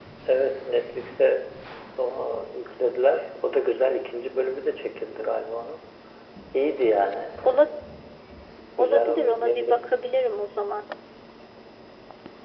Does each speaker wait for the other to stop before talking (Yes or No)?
No